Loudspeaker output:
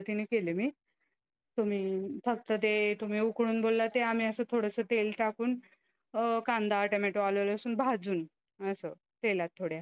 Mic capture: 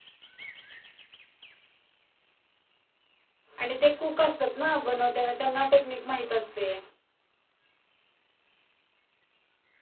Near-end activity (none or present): present